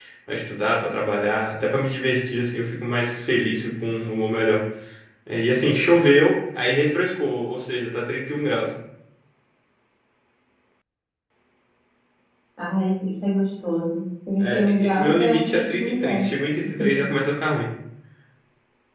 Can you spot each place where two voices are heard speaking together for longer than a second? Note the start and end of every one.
14.4-16.3

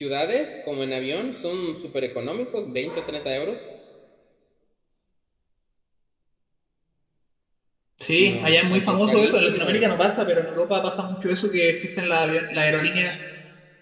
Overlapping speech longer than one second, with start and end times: 8.2-9.9

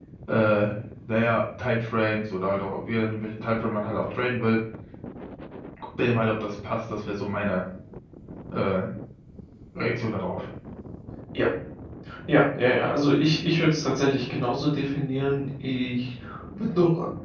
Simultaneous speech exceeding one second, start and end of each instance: none

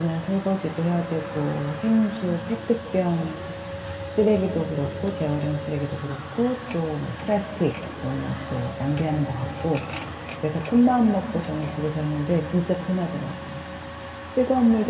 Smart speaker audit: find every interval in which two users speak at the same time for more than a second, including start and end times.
none

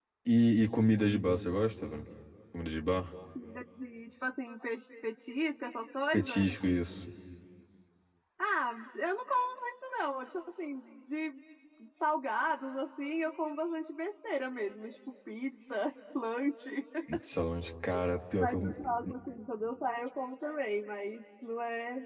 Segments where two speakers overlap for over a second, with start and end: none

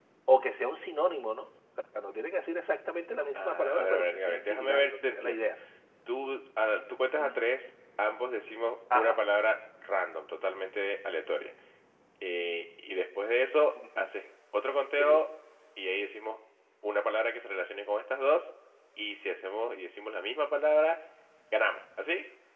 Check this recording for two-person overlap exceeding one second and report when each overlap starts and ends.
3.3-5.4

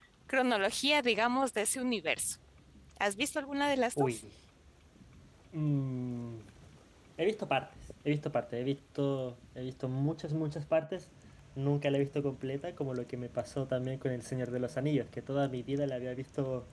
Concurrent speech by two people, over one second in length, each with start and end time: none

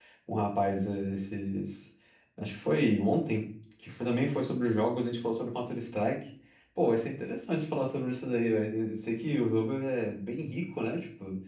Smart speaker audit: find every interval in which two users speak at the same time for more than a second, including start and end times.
none

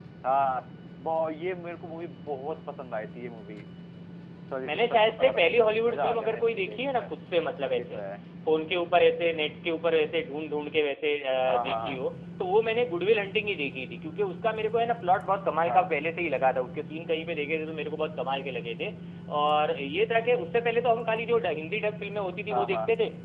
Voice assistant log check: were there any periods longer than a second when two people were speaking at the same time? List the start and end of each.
4.6-7.1

